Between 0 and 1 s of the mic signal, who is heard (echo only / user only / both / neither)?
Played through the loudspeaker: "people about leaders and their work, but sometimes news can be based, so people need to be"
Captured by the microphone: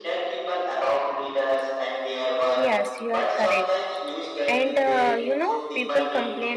echo only